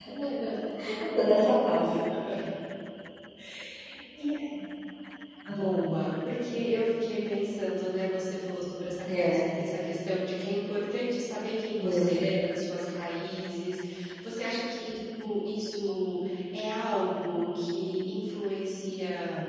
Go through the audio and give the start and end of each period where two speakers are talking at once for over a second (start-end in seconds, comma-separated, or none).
none